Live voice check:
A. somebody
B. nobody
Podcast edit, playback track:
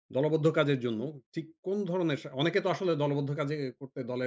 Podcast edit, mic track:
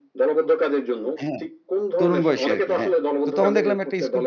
A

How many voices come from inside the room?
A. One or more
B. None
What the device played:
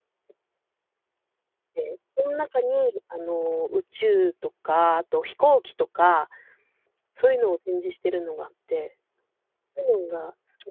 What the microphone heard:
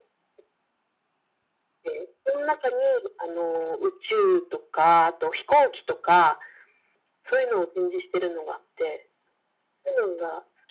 B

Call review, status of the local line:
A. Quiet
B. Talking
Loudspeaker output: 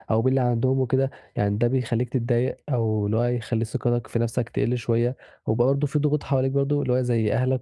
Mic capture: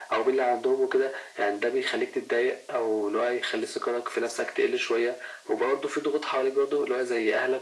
A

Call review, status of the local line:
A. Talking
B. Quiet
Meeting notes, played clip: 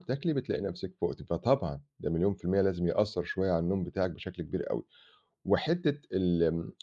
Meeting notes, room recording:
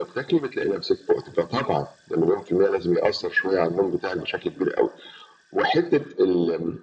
B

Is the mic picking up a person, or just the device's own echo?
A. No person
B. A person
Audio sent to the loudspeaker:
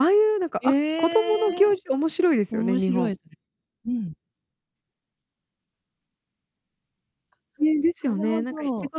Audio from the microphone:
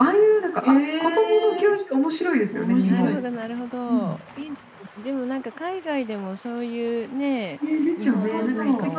B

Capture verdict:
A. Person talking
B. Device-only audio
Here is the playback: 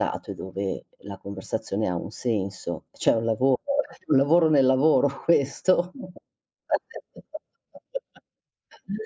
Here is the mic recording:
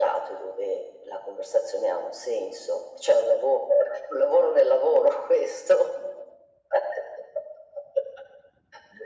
B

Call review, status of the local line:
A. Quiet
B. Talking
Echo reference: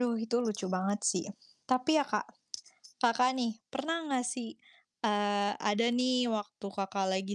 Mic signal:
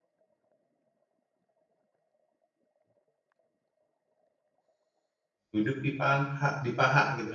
B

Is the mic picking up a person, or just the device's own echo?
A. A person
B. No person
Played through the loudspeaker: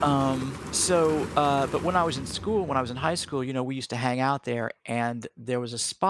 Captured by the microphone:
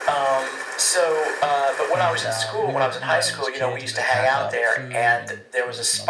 A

